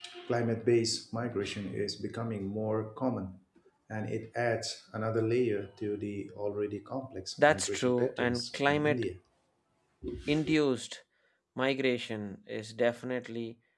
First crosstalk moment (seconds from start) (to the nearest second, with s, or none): 7 s